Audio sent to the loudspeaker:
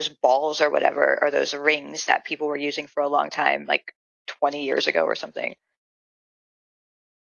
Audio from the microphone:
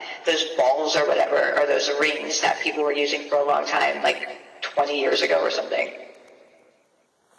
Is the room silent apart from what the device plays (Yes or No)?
Yes